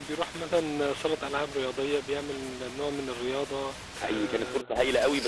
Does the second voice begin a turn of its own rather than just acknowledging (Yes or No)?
Yes